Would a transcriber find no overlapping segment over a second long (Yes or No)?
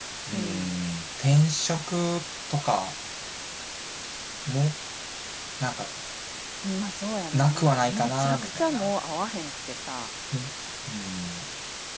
No